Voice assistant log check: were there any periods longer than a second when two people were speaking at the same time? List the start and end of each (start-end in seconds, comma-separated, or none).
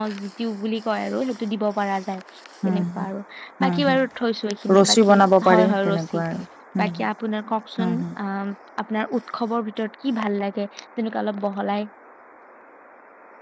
4.7-6.2